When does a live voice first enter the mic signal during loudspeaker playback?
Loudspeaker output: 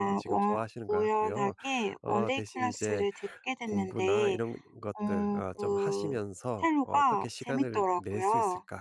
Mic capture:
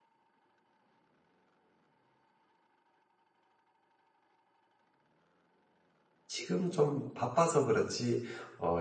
6.3 s

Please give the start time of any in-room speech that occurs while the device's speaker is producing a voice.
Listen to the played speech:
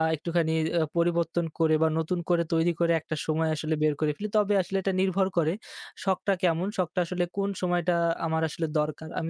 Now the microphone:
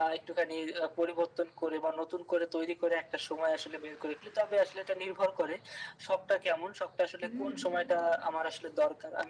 7.2 s

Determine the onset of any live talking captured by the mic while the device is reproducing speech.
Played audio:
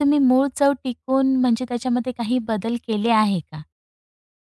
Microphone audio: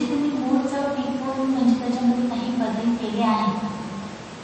none

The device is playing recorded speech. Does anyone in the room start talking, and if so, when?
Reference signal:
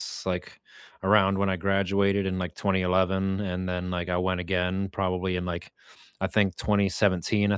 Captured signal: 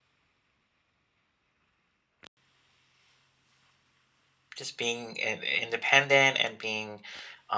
4.5 s

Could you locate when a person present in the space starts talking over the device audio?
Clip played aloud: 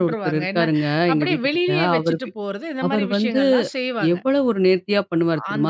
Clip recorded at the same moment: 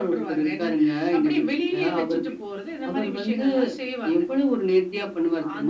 none

